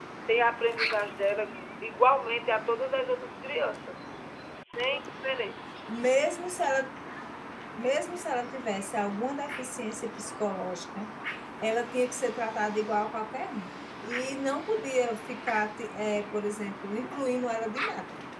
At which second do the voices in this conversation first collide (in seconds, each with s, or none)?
none